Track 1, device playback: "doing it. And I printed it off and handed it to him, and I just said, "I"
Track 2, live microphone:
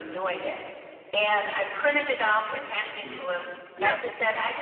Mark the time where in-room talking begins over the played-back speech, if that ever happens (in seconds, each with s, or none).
3.0 s